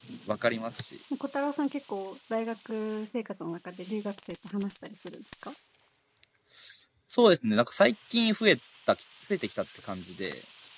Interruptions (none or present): none